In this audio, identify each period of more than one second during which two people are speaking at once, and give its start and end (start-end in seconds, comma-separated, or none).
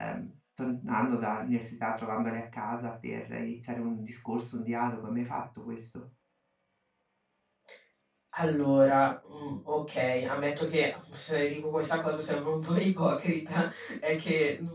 none